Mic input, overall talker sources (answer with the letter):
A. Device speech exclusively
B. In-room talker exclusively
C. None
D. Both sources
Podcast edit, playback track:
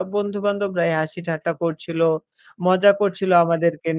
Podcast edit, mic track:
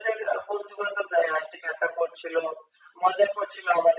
A